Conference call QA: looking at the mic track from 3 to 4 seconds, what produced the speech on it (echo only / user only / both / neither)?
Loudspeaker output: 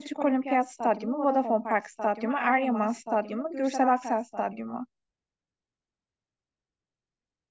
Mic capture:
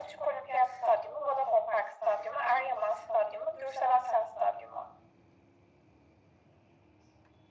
echo only